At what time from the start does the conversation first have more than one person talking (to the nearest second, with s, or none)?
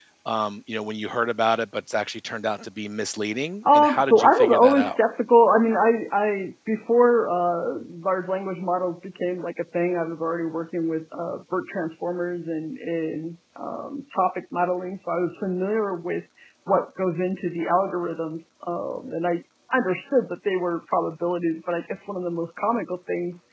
4 s